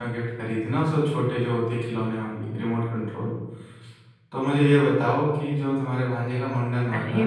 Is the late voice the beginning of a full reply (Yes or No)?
Yes